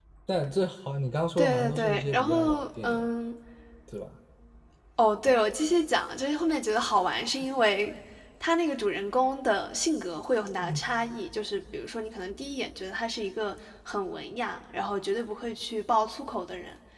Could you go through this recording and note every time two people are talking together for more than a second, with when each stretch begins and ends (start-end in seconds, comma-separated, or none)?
1.4-3.1